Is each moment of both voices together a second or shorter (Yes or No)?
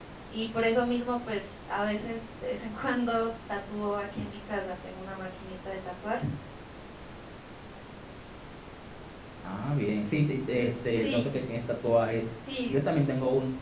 Yes